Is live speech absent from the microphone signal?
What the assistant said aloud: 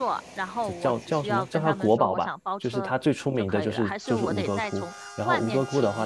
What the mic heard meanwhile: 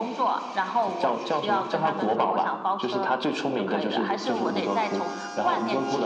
Yes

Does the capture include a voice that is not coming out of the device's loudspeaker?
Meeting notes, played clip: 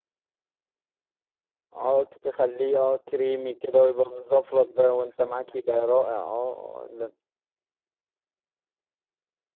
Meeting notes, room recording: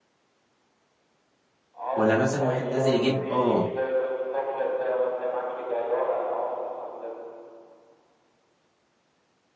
Yes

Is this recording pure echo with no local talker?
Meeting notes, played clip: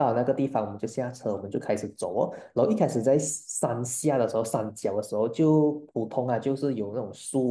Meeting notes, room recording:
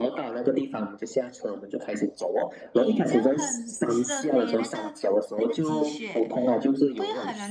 No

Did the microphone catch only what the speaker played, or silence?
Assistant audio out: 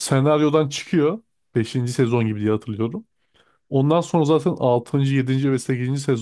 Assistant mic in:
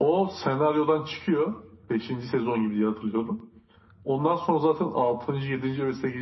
Yes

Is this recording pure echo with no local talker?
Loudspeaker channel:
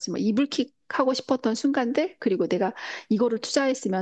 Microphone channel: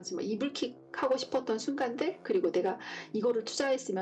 Yes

